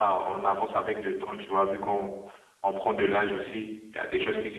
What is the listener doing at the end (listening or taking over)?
listening